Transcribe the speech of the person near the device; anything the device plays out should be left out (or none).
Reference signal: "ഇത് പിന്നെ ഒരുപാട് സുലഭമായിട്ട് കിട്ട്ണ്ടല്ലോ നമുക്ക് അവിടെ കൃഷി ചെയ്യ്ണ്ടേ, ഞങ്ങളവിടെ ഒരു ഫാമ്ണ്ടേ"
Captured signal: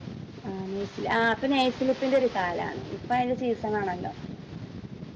ആഹ് നെയ്സി ആഹ് ഇപ്പ നെയ്സ്ലിപ്പിന്റെ ഒരു കാലാണ് ഹ്മ്മ് ഇപ്പയിന്റെ സീസണാണല്ലോ